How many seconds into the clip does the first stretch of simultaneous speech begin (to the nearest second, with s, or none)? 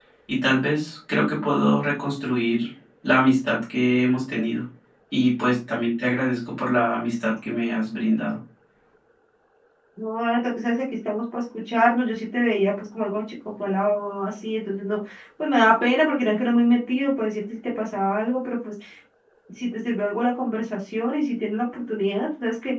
none